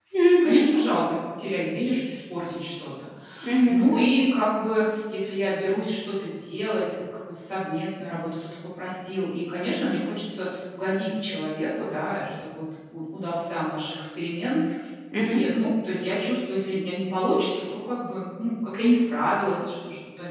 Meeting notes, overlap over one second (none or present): none